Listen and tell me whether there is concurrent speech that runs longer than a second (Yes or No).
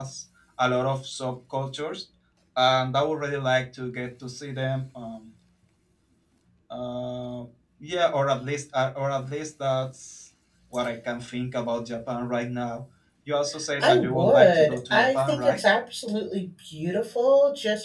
Yes